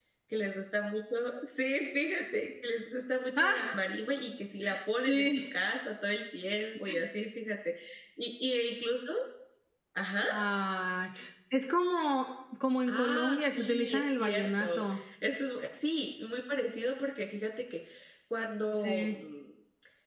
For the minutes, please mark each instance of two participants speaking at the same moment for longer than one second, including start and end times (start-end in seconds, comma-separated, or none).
12.9-14.8